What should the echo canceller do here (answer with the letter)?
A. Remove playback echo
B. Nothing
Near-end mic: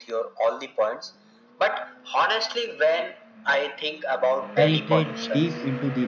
A